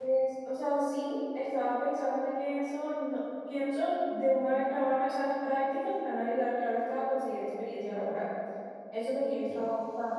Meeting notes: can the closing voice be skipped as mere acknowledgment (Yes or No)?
Yes